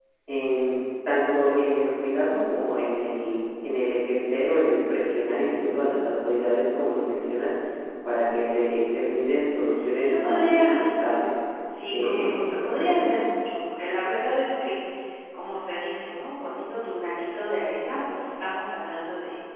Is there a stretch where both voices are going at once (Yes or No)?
Yes